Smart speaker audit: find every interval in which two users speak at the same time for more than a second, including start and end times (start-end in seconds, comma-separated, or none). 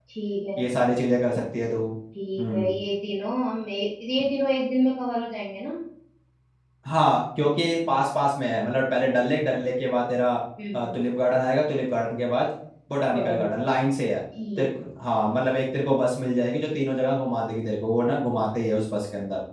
none